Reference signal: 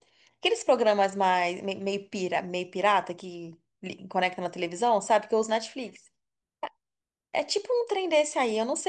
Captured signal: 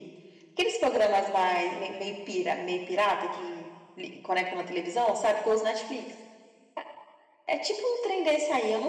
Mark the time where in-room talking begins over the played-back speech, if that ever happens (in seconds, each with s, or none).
none